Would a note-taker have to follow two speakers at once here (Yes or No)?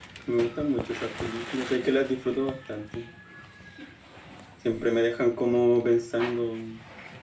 No